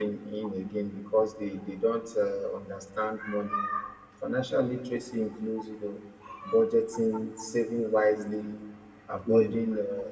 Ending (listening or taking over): listening